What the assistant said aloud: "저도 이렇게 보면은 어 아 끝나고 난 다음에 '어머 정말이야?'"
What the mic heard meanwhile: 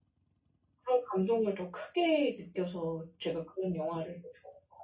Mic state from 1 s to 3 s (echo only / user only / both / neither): user only